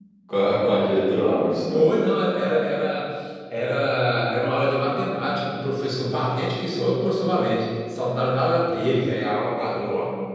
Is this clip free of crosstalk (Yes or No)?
Yes